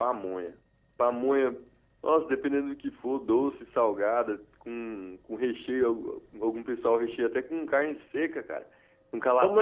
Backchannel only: No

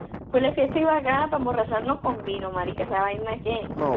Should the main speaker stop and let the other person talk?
Yes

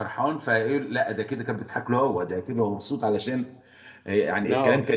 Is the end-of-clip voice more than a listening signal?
No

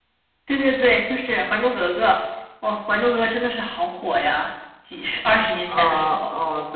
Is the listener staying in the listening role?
No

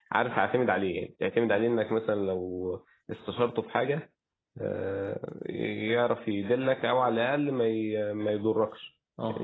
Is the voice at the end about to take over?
No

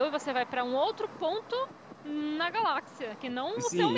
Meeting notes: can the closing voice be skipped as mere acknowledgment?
No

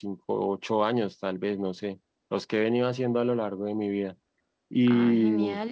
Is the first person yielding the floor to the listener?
Yes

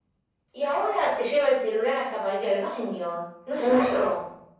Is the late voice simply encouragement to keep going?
No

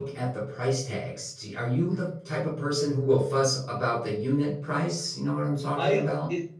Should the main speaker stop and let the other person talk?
Yes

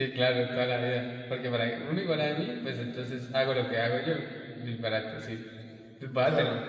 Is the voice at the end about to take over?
No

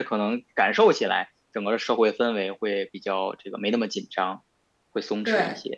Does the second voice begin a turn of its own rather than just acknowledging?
Yes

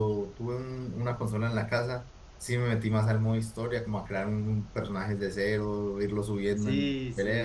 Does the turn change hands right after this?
Yes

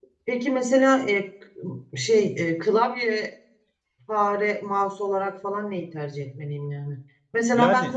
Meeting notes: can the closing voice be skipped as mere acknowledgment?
Yes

